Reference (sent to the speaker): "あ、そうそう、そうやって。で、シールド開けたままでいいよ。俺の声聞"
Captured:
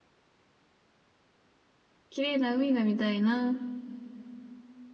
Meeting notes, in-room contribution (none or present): present